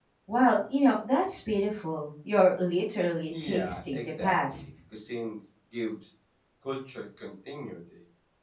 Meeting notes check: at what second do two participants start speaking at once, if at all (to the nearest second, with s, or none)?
3 s